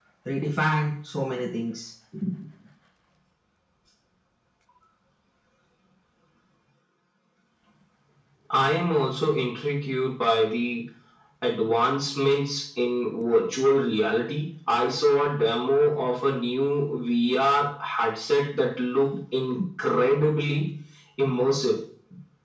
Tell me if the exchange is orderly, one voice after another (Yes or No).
Yes